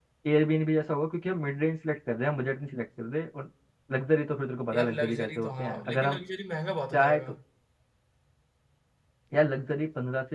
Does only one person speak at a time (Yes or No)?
No